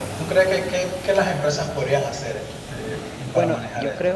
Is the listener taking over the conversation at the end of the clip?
Yes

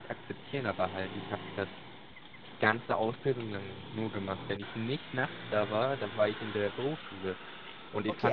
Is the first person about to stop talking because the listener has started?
Yes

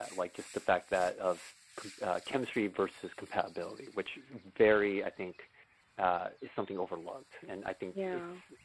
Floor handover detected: No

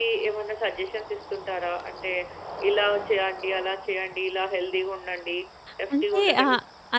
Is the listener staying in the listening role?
No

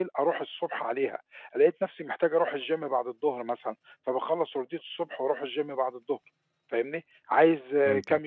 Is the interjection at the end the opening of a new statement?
No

